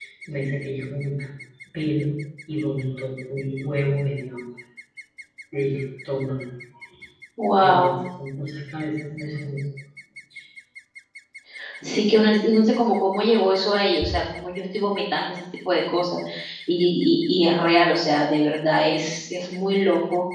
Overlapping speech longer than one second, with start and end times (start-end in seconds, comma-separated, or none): none